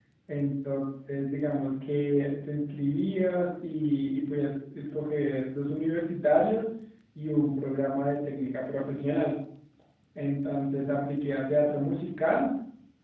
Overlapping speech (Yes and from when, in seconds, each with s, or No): No